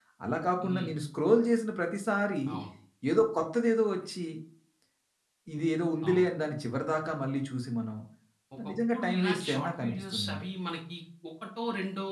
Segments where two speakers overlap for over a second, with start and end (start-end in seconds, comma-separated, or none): 8.7-10.5